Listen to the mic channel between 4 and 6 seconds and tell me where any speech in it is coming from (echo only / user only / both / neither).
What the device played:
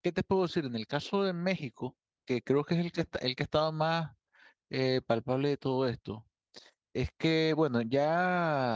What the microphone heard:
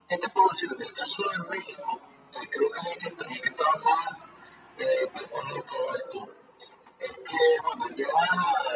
echo only